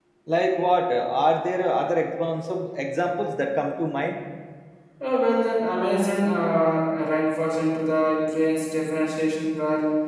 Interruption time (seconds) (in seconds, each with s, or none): none